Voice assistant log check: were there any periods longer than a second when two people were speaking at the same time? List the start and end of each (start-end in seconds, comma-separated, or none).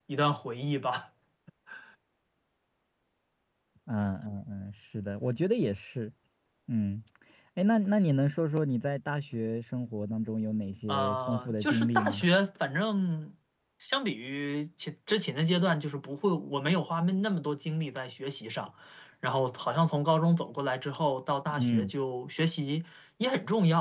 10.9-12.3